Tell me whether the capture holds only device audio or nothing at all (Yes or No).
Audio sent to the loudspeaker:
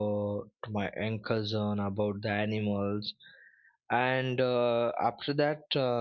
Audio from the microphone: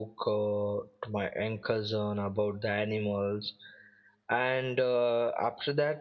Yes